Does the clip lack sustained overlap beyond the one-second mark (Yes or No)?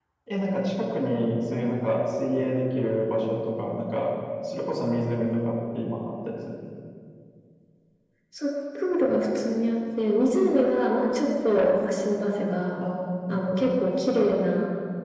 Yes